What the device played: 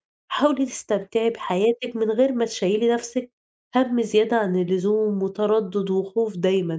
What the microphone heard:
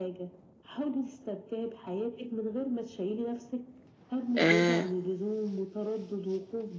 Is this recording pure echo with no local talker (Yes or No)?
No